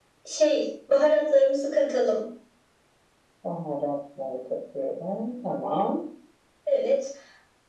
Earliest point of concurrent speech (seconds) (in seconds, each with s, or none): none